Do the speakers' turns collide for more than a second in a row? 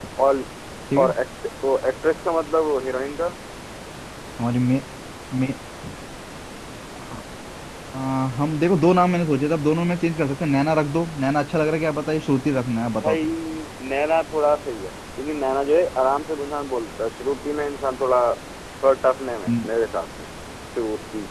No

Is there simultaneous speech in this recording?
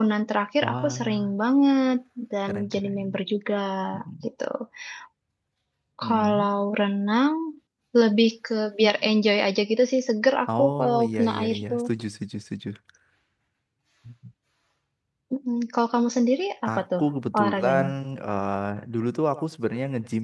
Yes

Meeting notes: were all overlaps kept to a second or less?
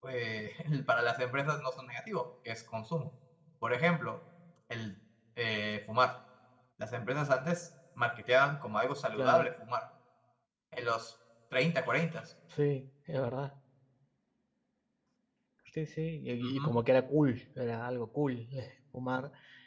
Yes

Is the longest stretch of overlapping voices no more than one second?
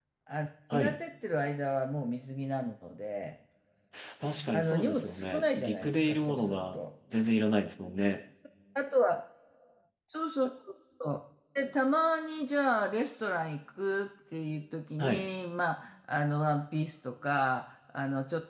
No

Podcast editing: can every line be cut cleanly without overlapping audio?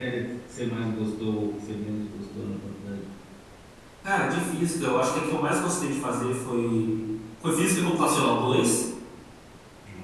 Yes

